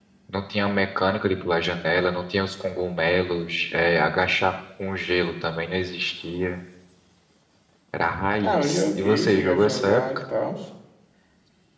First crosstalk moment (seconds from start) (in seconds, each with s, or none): 8.4 s